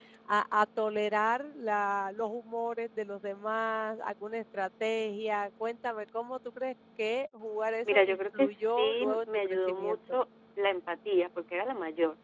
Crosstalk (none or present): present